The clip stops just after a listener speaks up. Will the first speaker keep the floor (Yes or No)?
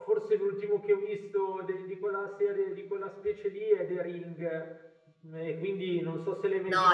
No